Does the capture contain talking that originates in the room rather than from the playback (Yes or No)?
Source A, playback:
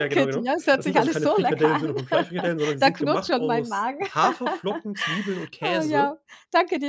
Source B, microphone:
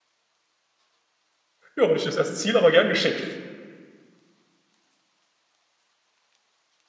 Yes